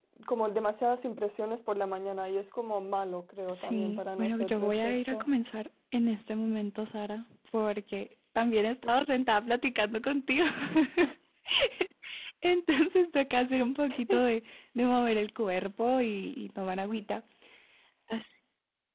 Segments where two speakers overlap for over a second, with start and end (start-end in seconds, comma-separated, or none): 3.5-5.3